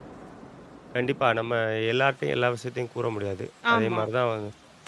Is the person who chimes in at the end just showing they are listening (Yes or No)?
Yes